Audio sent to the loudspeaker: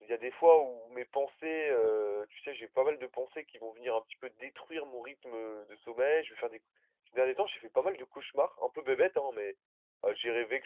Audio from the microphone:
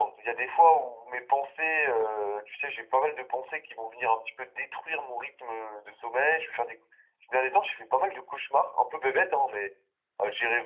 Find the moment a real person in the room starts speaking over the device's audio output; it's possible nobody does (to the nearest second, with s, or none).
none